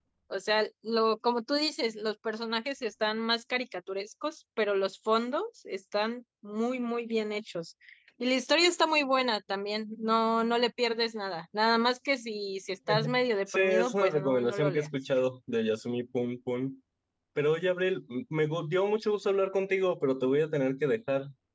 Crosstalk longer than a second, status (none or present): present